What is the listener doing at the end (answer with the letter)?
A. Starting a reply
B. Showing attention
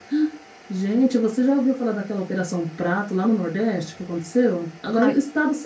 B